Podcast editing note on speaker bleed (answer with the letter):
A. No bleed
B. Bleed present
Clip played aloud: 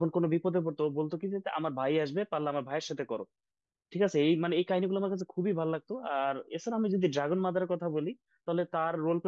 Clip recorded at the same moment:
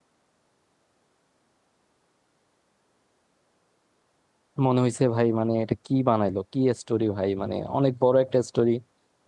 A